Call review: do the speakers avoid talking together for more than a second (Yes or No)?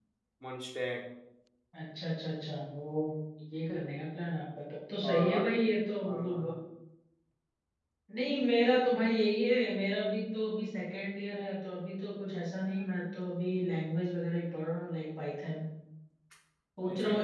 Yes